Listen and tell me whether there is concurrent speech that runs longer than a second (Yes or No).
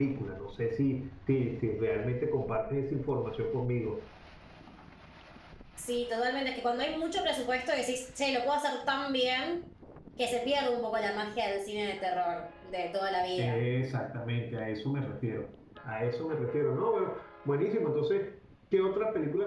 No